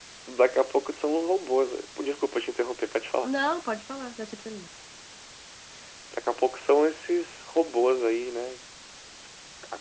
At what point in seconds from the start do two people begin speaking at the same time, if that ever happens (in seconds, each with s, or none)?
none